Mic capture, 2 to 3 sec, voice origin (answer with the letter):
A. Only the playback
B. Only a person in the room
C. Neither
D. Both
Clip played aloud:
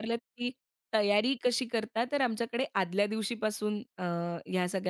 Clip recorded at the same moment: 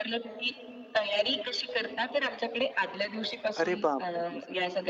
A